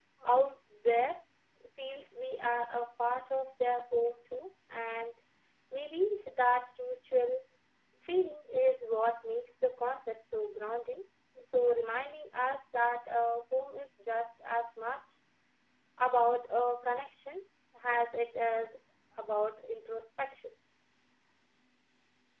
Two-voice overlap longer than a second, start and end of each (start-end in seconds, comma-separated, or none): none